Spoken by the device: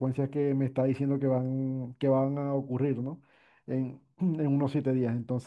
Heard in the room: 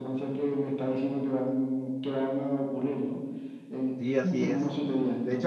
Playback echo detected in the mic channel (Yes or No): Yes